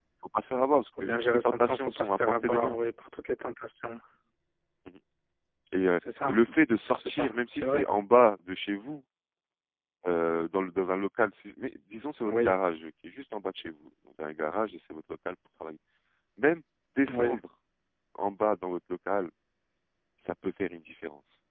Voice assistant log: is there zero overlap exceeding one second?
No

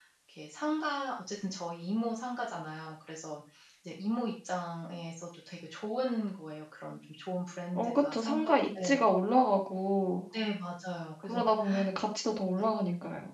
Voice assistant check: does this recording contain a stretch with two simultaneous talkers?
Yes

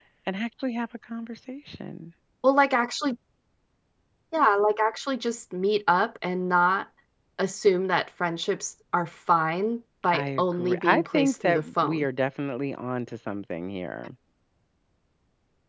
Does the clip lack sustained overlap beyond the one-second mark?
No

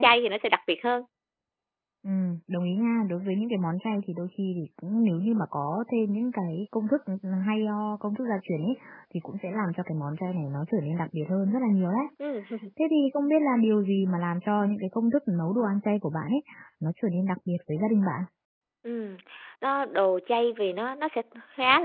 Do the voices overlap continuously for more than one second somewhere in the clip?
No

